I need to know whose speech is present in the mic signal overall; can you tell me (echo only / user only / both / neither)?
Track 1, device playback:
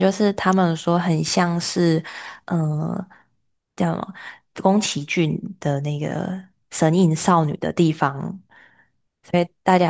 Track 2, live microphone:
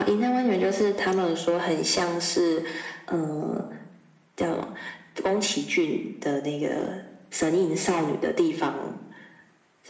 echo only